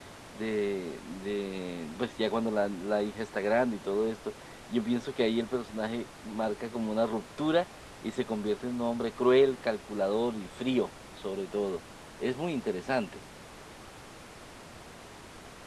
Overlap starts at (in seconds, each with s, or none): none